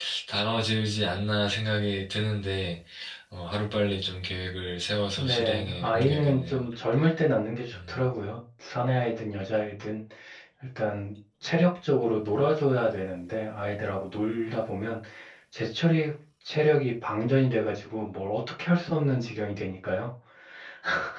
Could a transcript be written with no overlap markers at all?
No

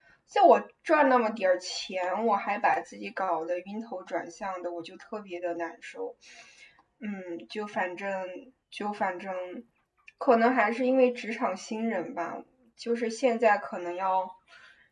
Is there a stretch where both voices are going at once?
No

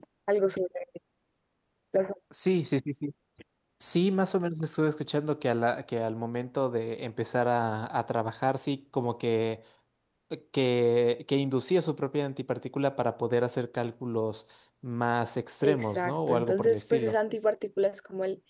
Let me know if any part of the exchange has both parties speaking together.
Yes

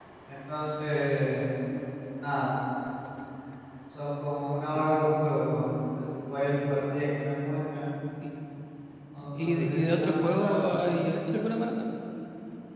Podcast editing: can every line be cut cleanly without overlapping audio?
No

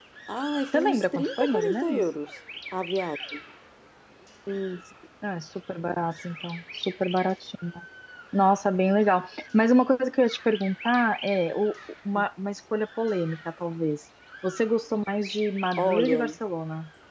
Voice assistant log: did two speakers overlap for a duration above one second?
Yes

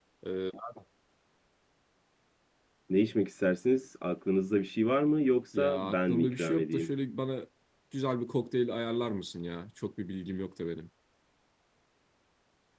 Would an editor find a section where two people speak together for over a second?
Yes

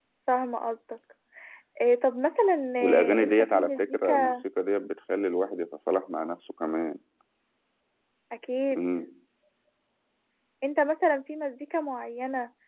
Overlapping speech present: Yes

